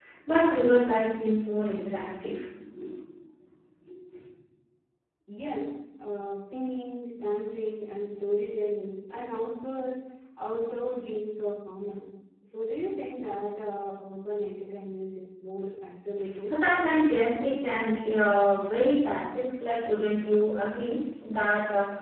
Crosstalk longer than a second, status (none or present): none